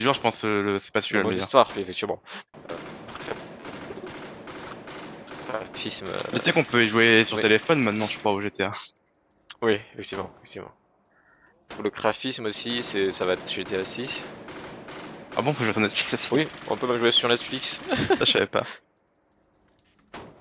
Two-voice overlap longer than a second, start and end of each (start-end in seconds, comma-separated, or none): none